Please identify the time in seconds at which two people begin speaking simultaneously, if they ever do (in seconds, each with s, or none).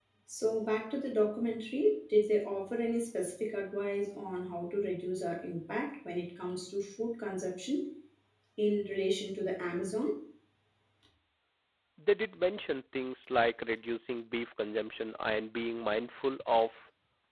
none